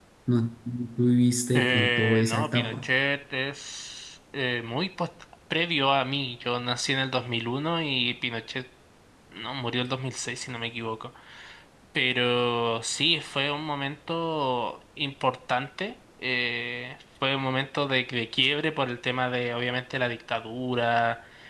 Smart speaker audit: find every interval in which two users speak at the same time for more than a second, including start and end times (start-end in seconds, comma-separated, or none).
1.5-2.9